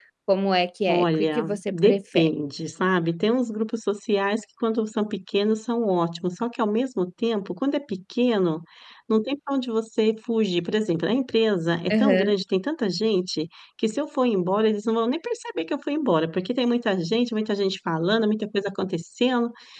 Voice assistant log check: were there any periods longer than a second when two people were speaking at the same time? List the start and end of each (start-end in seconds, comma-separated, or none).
0.9-2.3